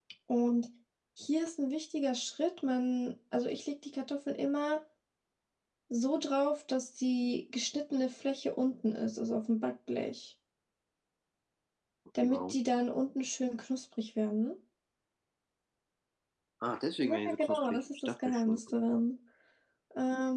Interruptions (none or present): present